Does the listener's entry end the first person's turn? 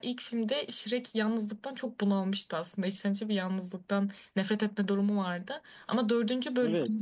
No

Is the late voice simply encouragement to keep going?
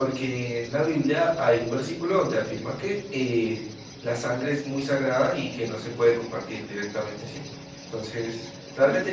Yes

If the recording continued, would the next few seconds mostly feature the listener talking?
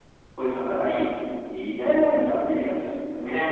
No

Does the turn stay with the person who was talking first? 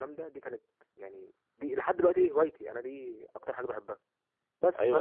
No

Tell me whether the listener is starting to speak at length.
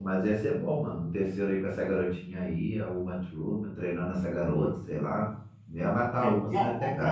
Yes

